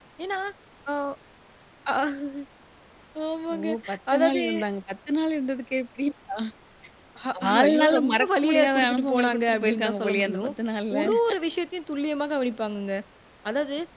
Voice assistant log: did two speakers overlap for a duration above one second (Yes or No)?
Yes